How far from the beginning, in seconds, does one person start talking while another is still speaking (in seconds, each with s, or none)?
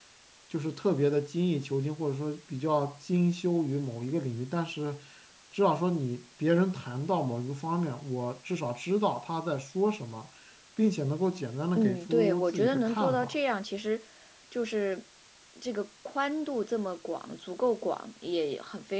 11.8 s